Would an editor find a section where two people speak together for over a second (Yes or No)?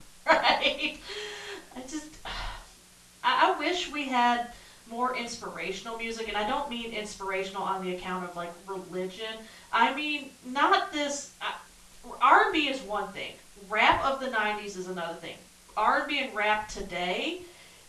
No